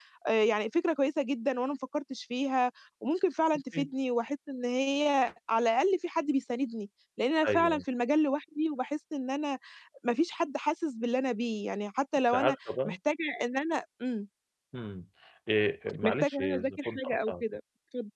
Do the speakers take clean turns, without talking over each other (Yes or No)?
No